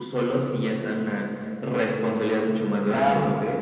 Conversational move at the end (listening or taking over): taking over